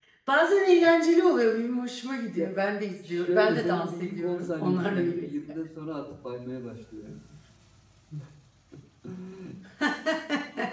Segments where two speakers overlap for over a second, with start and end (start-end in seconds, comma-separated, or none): 3.0-5.3